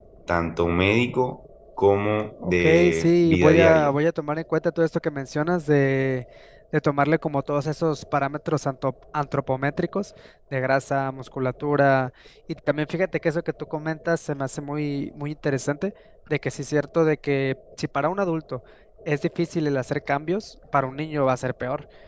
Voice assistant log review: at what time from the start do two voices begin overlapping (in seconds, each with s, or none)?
2.4 s